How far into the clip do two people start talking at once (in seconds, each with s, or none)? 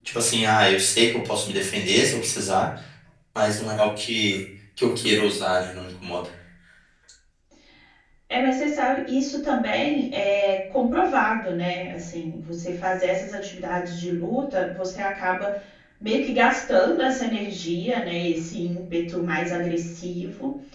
none